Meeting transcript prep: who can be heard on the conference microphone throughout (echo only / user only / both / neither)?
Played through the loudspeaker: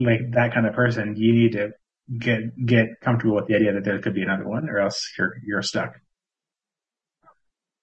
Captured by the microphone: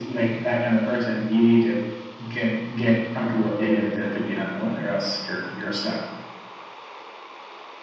echo only